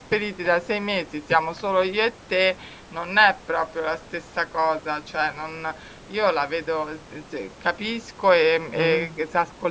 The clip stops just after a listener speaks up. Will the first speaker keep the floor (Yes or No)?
Yes